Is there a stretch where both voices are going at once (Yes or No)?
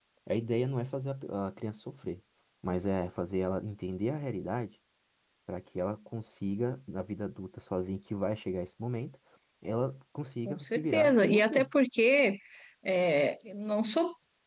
Yes